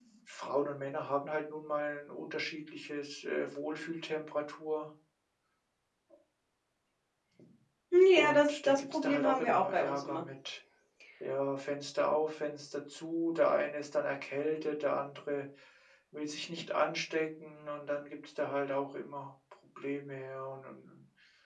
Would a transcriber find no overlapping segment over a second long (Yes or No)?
No